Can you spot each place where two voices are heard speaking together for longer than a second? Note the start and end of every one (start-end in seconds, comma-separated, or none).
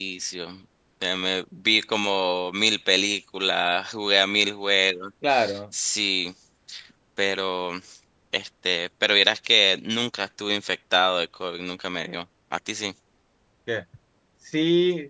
none